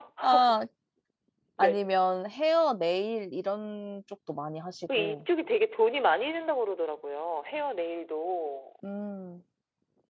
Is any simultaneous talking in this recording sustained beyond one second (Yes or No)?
No